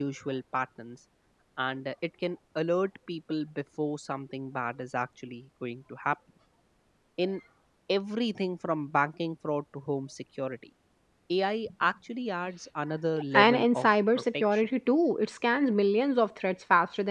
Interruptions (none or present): present